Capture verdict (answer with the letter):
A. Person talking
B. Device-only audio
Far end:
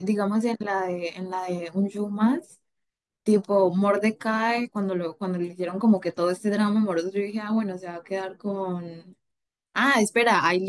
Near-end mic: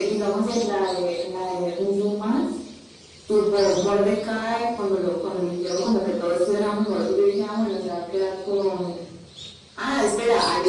B